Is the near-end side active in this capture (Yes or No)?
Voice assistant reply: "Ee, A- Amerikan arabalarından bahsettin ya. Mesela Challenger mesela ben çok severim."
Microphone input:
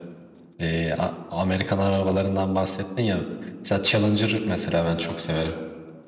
No